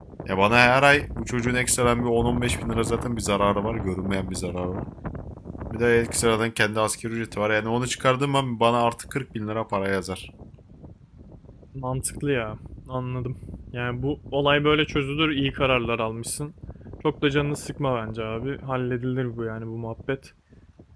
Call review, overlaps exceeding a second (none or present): none